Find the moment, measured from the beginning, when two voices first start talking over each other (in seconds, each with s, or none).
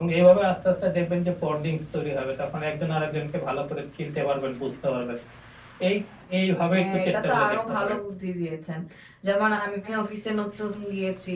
6.7 s